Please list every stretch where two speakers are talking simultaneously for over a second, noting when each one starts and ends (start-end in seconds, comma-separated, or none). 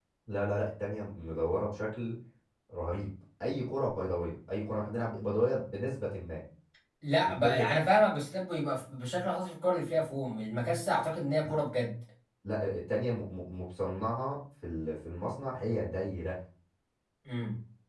none